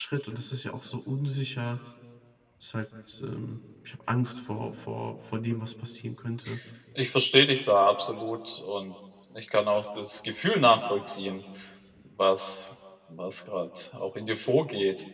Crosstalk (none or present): none